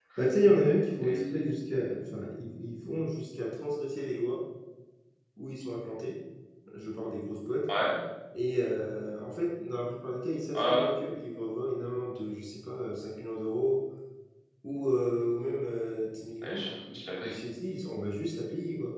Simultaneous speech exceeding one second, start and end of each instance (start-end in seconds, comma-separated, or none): none